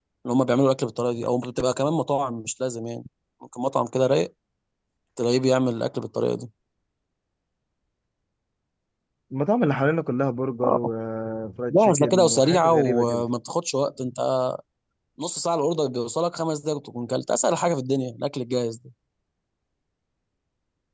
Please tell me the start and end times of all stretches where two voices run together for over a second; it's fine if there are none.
11.7-13.2

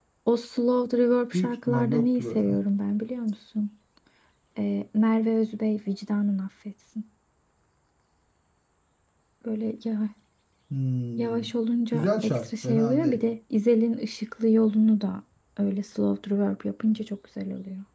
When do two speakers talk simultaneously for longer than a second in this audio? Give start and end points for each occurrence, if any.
1.3-2.6, 11.9-13.2

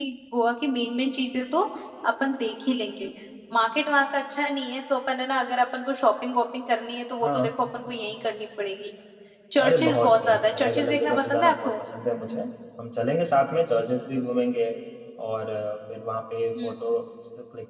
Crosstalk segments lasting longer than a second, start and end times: 9.6-11.7

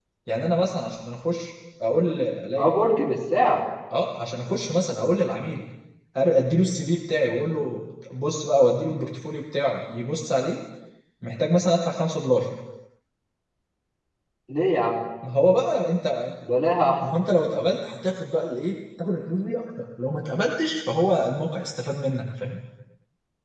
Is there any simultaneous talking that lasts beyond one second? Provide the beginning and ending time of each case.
none

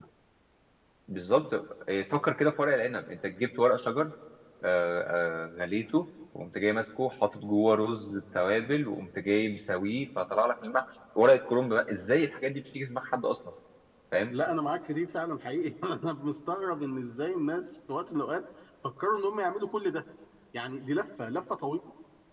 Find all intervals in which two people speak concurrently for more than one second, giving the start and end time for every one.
none

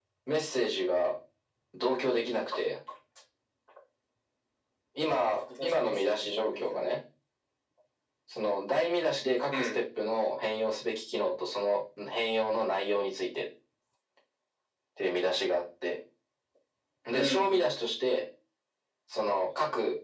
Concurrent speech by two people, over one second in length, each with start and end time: 5.6-6.8

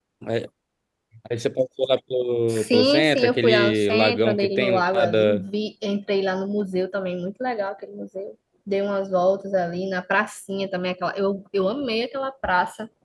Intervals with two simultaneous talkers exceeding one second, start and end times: 2.5-5.2

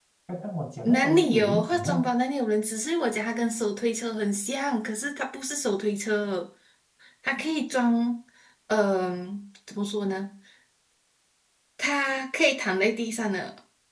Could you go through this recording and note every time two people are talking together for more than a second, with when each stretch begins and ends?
0.8-2.1

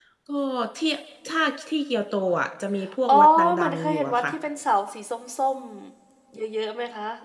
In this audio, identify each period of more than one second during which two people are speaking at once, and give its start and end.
3.1-4.3

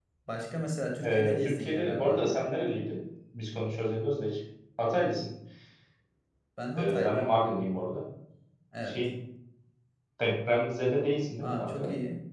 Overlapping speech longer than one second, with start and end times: 1.0-2.4

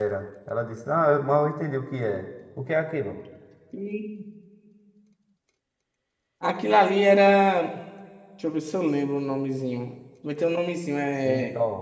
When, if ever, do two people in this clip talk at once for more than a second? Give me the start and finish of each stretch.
none

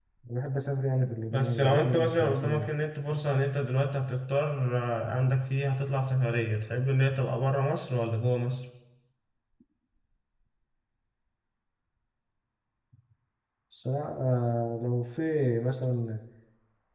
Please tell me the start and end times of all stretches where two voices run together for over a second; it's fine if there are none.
1.3-2.7

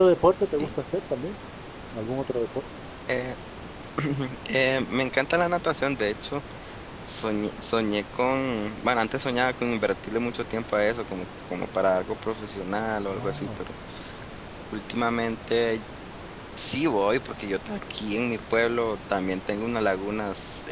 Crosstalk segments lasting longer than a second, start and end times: none

